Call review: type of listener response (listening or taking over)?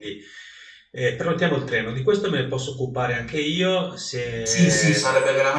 taking over